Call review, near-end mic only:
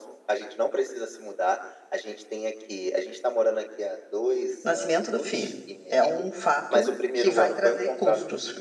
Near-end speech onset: 4.6 s

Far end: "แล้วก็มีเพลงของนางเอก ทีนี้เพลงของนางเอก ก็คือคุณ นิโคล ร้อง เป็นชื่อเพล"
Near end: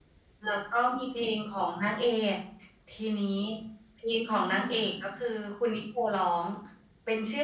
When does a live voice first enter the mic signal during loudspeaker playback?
4.3 s

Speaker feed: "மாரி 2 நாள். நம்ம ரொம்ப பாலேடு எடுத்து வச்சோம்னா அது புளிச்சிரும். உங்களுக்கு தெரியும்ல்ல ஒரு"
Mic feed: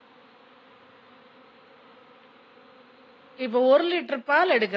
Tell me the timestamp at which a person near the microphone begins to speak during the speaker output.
3.5 s

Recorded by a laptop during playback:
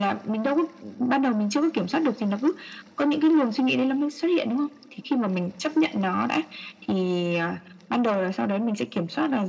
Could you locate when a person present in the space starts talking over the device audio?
none

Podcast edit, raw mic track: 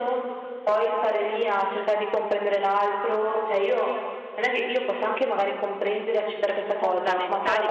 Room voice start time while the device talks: 6.5 s

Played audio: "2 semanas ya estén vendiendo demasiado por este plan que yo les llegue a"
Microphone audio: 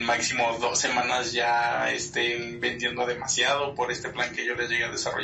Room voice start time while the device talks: none

